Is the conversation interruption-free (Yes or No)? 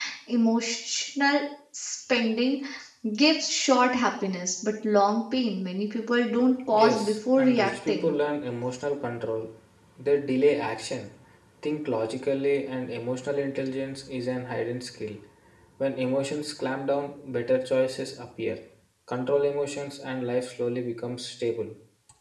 No